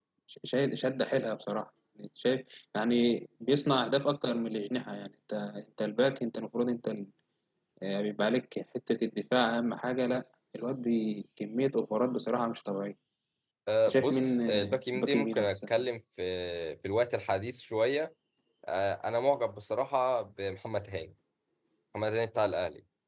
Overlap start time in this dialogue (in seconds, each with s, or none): 13.9 s